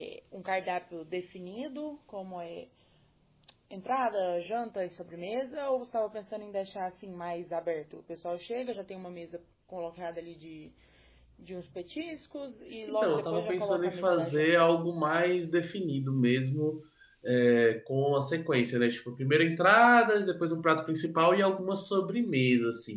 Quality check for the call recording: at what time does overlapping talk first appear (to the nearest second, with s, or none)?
13 s